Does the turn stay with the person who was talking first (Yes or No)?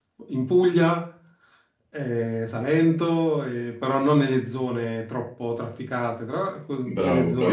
No